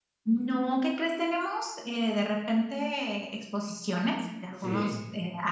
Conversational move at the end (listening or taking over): listening